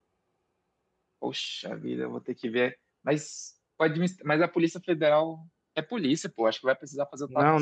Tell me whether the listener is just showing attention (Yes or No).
No